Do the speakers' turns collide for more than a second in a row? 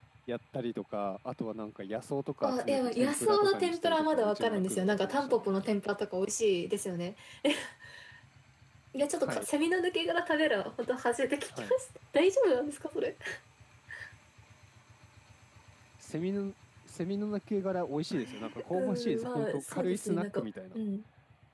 Yes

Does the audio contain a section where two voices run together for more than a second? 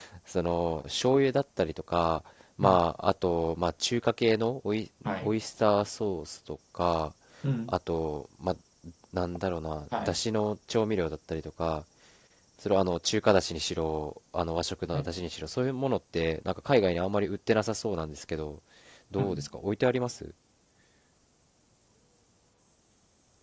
No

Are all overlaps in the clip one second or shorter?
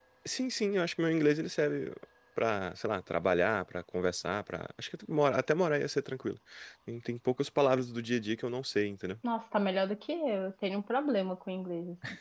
Yes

